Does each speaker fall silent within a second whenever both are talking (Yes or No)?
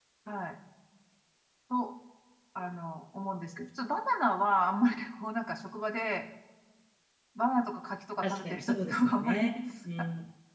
No